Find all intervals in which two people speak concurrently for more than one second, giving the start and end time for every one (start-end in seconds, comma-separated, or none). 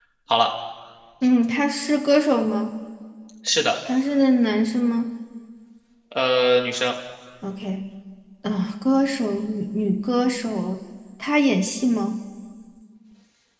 none